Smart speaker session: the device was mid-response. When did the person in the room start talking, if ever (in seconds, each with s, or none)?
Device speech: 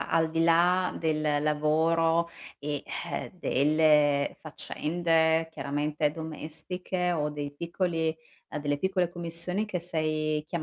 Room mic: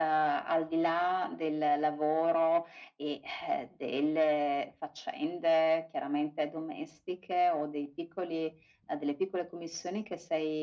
none